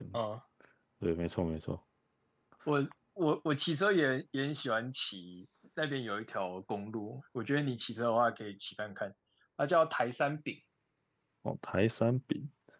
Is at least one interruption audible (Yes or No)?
No